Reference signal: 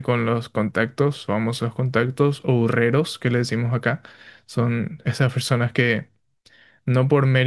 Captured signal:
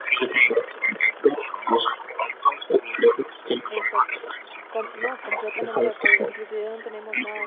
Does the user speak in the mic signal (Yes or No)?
Yes